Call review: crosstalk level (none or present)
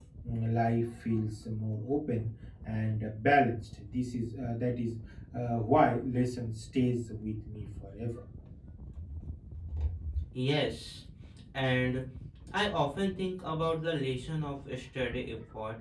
none